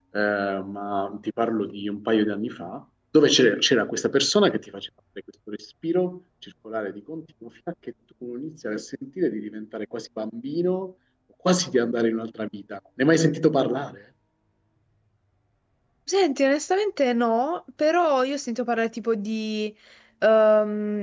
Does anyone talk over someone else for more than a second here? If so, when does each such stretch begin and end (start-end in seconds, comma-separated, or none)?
none